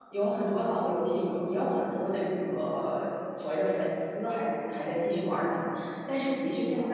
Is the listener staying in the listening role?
Yes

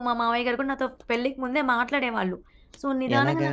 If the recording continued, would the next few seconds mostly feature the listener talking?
No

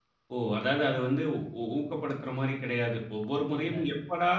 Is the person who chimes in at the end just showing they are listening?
Yes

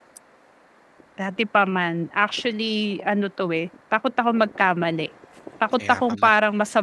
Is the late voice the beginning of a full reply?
No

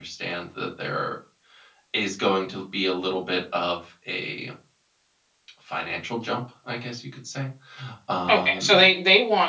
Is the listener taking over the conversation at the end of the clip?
Yes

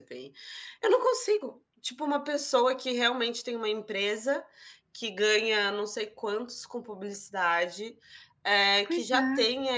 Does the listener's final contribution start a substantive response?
No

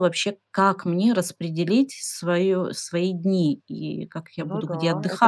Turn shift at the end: Yes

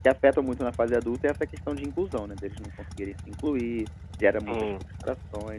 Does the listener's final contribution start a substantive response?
No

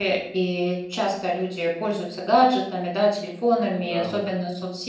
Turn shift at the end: No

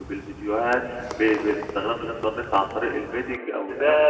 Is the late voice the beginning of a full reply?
Yes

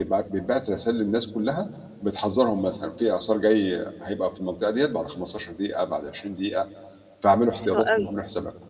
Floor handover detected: Yes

